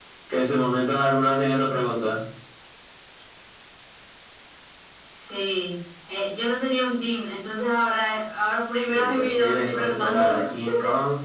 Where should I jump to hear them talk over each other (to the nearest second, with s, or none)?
9 s